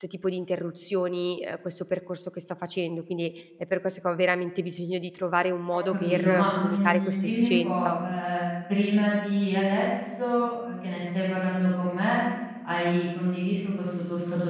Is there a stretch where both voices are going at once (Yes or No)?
Yes